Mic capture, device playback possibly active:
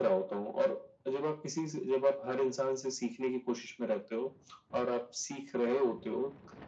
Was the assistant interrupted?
No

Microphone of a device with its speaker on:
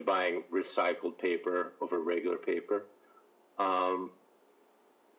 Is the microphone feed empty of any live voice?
Yes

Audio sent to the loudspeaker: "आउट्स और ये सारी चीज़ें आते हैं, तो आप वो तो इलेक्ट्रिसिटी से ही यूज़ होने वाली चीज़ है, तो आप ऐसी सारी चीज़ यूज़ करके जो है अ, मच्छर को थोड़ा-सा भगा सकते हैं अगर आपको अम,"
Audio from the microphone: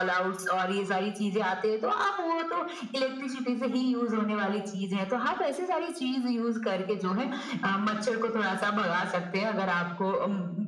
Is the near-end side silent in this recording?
Yes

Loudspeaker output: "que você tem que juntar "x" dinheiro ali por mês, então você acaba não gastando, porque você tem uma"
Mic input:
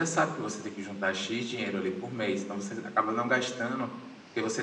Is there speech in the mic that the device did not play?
No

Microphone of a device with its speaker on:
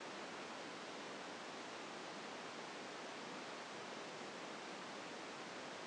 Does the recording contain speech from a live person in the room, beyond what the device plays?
No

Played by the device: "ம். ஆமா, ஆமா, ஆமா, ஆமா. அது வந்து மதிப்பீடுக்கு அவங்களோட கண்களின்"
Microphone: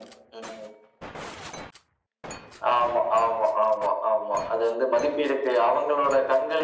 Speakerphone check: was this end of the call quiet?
Yes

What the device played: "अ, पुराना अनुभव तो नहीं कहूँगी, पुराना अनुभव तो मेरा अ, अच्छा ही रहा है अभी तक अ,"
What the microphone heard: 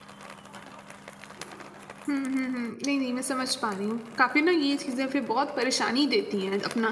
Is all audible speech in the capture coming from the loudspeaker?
No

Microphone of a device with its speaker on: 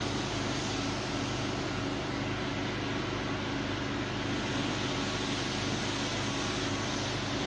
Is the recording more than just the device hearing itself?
No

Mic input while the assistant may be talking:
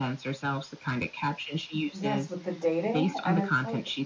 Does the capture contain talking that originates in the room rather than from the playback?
Yes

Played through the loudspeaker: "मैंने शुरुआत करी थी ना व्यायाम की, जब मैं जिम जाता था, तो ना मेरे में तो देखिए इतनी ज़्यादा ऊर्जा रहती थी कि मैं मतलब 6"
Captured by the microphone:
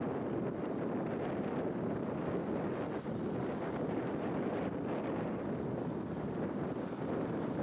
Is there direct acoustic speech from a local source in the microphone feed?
No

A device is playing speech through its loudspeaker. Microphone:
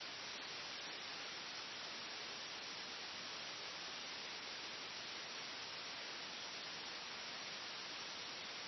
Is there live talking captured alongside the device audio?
No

